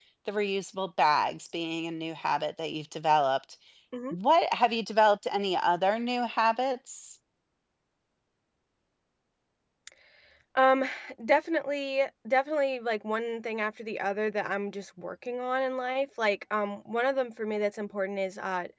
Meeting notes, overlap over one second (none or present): none